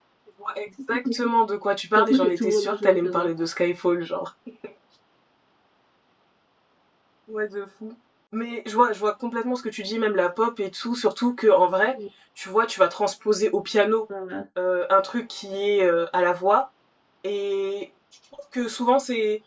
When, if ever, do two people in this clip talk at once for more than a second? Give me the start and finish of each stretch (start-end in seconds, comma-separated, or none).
1.9-3.3